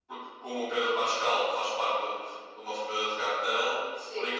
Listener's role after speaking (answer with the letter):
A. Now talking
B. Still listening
B